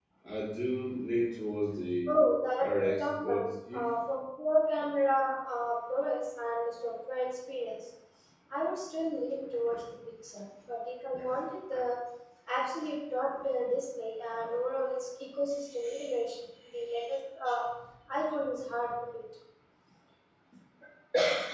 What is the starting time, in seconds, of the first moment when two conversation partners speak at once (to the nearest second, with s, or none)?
3 s